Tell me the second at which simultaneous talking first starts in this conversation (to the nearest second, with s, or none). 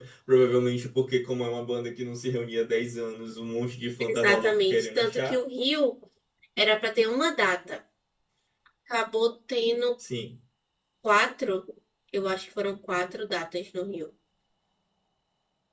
4 s